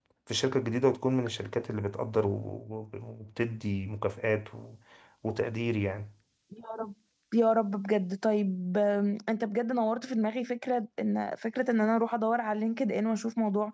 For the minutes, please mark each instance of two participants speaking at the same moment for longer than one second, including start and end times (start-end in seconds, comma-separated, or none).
none